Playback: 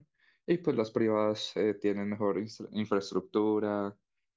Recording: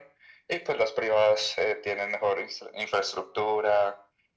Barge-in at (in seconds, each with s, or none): none